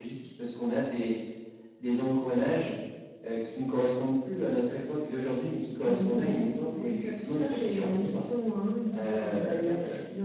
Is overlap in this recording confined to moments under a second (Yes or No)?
No